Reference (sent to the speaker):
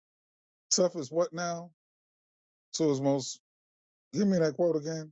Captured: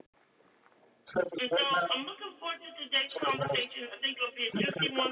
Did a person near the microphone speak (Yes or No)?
Yes